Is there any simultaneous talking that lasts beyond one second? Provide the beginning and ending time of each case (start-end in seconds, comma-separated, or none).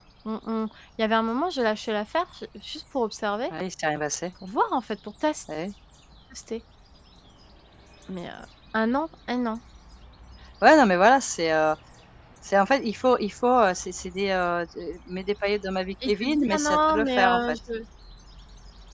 16.1-17.6